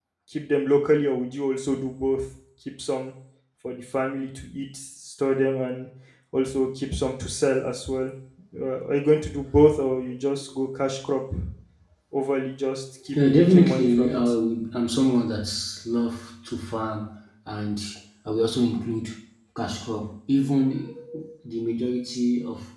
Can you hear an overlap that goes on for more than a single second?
Yes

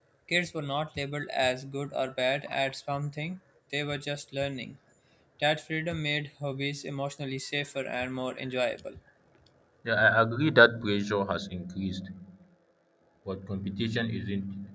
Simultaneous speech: No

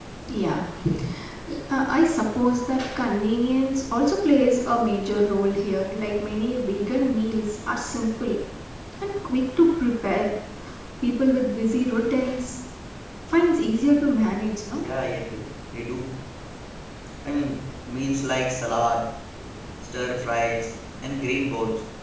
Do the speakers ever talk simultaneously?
No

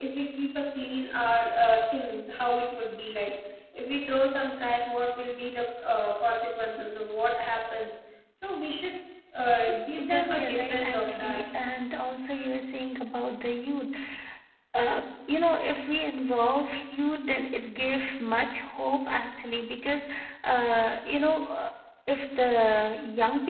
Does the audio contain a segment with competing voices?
Yes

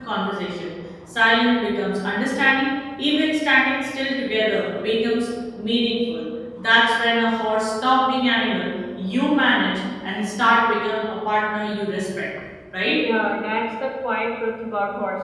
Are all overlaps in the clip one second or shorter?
Yes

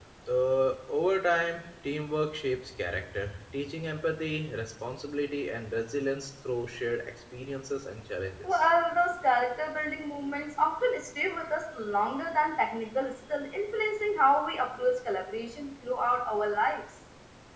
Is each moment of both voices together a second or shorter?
Yes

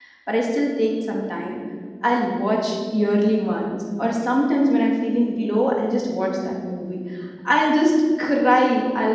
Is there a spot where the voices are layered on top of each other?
No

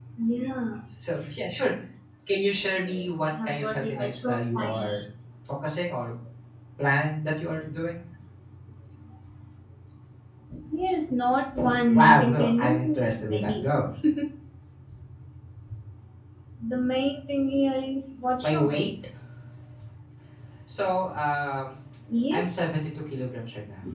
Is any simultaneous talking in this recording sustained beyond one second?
Yes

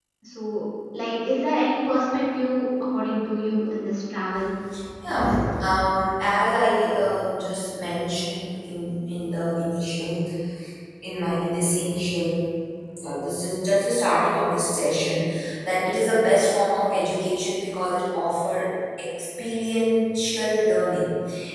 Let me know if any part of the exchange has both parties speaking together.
No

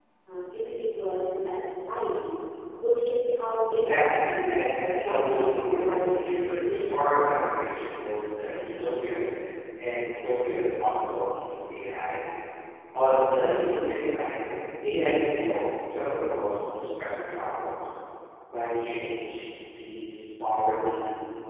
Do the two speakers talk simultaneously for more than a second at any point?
Yes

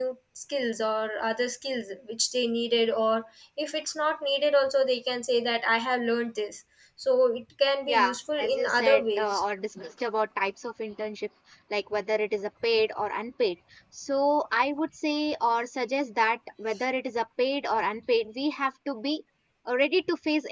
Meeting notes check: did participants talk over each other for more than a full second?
Yes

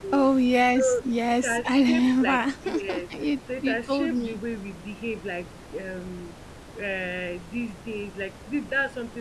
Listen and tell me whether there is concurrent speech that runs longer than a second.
Yes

